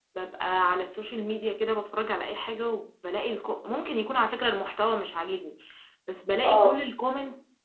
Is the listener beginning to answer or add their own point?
No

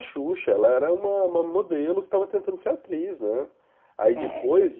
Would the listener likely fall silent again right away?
Yes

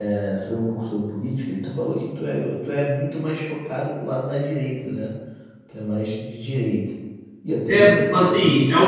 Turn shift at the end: Yes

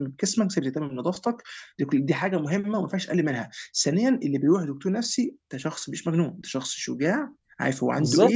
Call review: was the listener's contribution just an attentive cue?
Yes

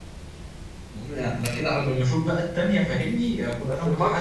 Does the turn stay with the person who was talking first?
No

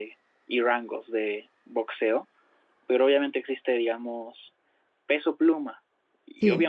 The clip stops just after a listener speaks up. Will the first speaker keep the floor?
Yes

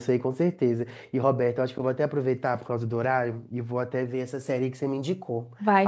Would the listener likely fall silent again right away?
No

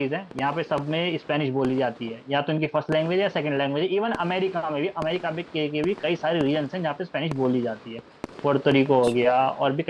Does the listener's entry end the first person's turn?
No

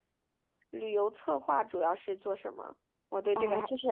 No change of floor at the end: No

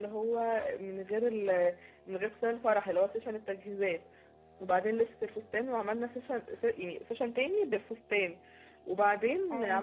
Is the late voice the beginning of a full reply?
No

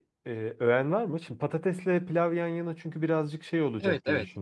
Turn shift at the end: Yes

